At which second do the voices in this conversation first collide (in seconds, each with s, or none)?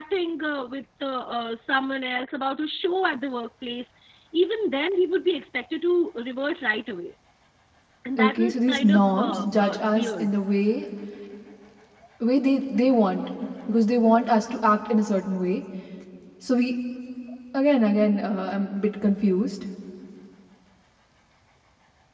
8.2 s